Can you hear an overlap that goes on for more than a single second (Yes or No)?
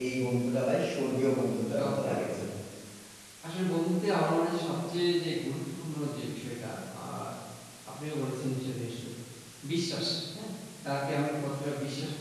No